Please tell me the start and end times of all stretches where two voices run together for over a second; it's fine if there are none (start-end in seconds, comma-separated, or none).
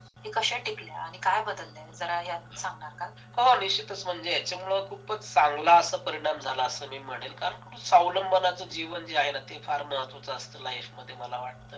none